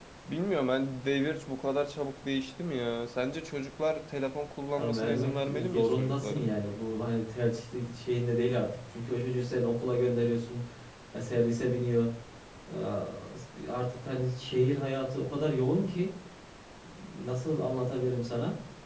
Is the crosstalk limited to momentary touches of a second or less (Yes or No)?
No